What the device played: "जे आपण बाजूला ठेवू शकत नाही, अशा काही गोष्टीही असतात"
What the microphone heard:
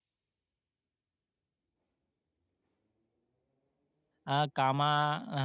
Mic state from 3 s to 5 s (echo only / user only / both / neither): user only